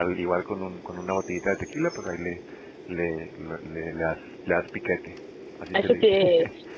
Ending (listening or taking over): taking over